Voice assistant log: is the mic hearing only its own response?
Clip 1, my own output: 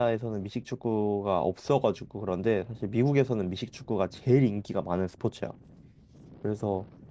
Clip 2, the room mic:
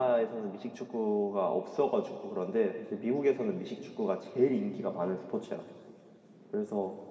Yes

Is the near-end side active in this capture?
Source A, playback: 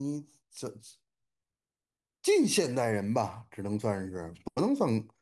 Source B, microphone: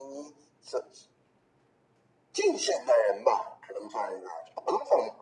No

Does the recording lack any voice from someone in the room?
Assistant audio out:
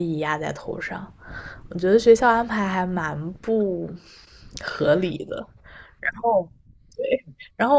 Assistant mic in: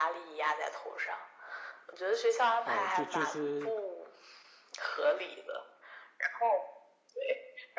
No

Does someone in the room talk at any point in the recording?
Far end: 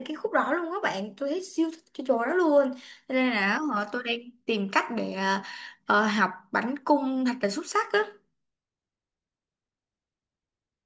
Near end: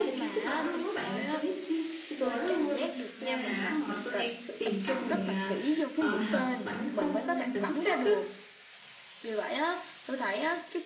Yes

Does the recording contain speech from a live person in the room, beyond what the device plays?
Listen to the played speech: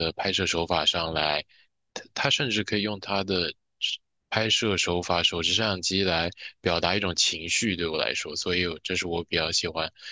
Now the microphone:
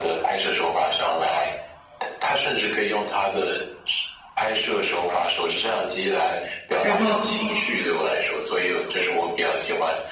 Yes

